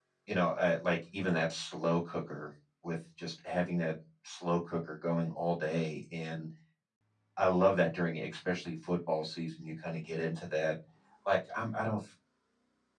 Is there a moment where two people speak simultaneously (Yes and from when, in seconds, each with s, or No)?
No